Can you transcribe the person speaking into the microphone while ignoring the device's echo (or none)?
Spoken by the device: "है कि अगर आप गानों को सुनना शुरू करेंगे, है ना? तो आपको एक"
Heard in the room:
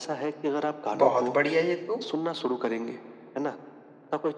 बहुत बढ़िया ये तो।